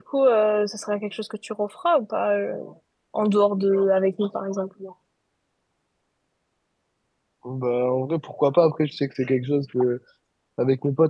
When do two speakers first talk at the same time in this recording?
none

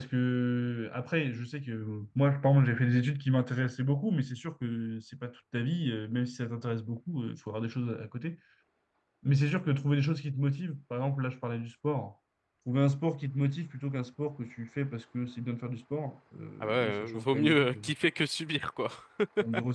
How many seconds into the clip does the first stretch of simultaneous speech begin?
16.6 s

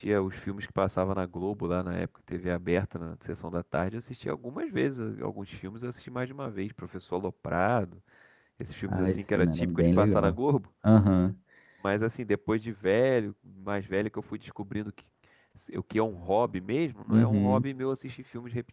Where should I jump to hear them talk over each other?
8.9 s

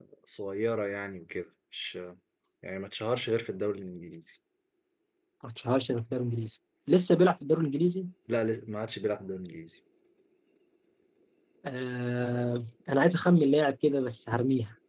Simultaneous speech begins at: none

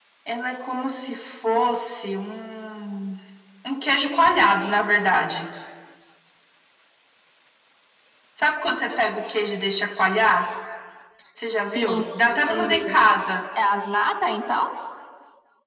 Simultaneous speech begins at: 11.8 s

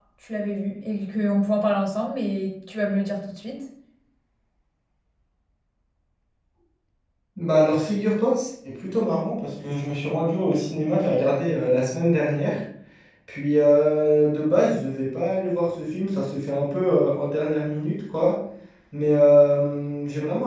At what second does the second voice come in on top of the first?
none

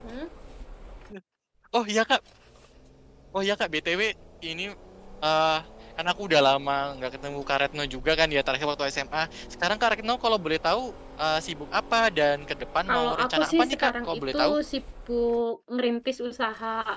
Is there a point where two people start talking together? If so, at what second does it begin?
12.9 s

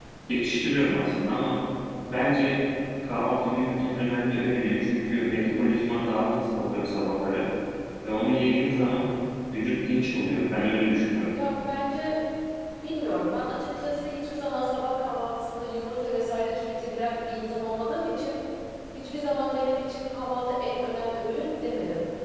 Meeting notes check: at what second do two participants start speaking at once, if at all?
none

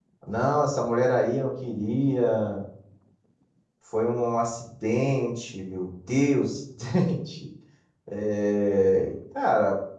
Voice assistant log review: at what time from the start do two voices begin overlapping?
none

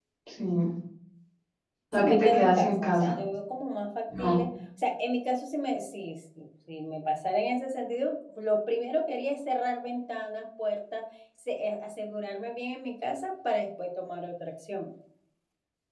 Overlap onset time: 1.9 s

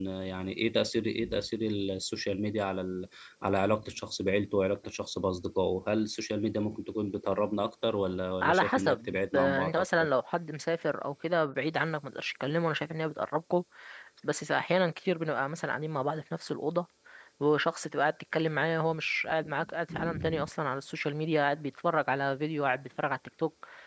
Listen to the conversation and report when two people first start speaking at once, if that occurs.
8.4 s

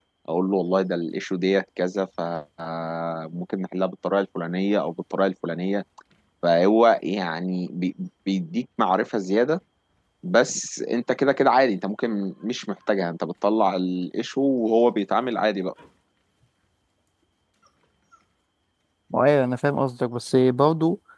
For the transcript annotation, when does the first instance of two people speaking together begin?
none

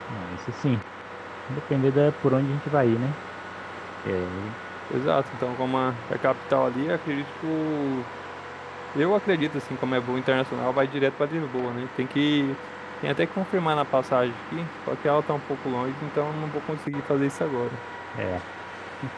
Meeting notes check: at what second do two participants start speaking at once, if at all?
none

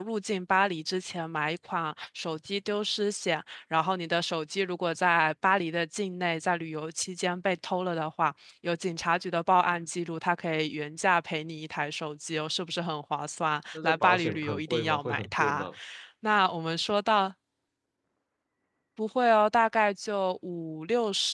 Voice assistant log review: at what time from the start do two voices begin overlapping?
13.8 s

